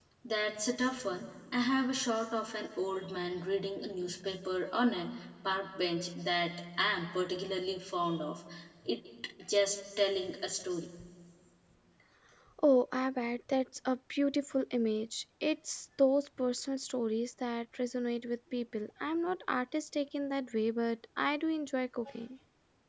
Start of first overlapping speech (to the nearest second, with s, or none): none